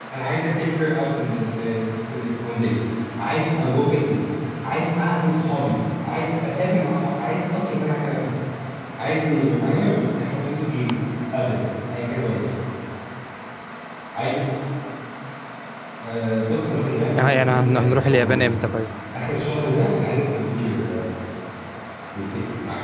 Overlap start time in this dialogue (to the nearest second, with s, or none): 17 s